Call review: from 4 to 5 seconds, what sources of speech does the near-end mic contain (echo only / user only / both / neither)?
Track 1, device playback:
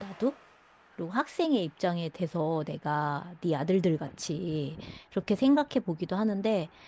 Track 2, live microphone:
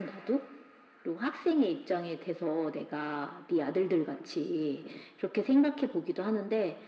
echo only